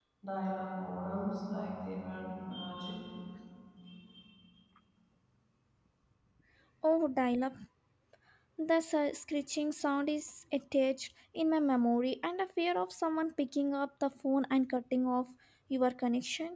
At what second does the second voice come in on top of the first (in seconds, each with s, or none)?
none